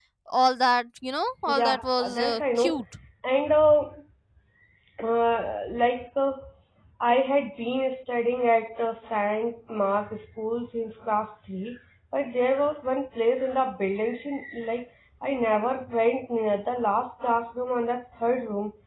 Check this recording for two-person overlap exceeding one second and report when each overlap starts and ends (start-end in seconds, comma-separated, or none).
1.5-2.8